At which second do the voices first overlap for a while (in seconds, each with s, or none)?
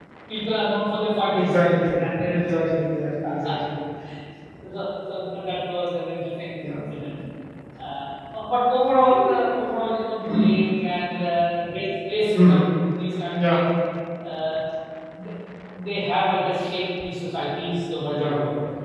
1.3 s